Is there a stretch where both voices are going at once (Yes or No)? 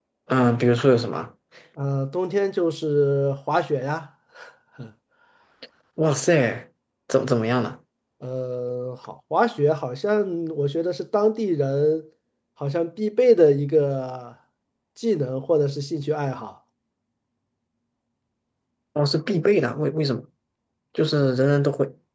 No